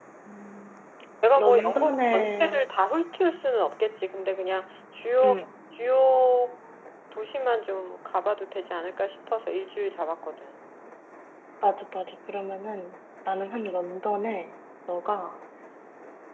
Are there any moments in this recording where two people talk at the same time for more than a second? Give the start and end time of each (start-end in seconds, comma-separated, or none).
1.4-2.6